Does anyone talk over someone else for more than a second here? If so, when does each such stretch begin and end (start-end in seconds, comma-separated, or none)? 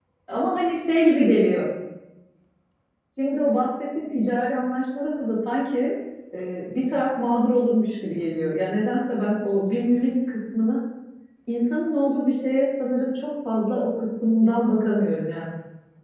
none